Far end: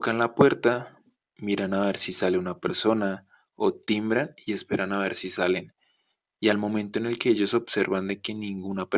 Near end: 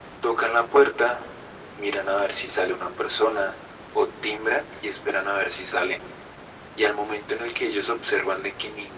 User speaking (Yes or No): No